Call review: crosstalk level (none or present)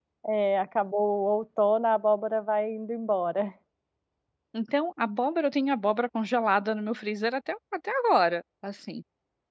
none